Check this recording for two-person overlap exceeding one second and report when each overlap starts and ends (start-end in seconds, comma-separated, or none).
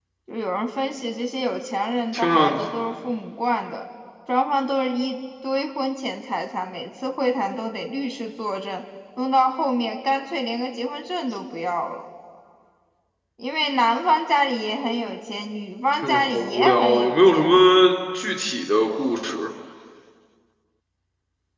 15.9-17.6